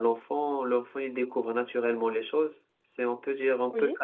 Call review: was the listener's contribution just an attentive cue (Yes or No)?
Yes